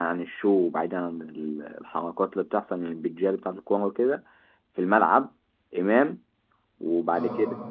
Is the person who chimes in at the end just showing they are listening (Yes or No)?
Yes